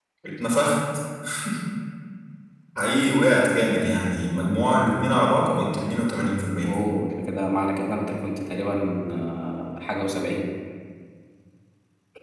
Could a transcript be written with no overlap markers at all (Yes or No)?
Yes